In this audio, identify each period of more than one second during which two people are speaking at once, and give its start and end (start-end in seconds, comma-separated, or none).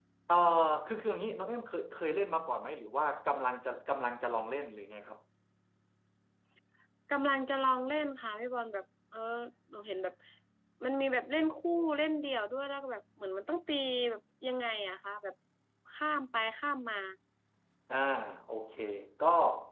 none